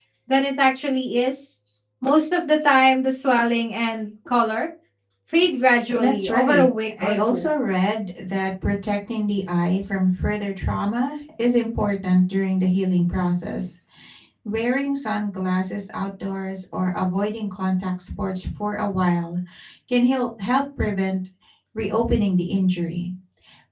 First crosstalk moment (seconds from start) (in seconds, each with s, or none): 6.0 s